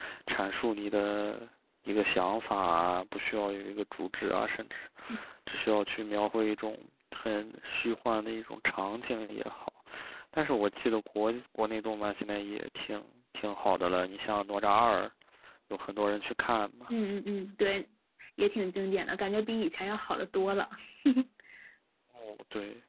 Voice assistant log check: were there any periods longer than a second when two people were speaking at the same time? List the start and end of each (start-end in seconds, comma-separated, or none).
none